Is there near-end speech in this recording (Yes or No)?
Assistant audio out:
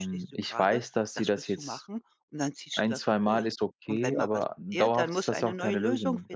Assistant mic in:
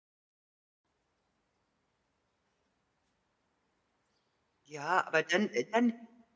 Yes